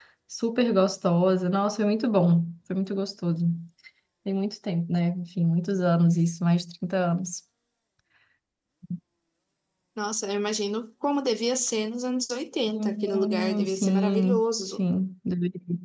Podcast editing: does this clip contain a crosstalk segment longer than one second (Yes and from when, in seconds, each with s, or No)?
Yes, from 12.7 s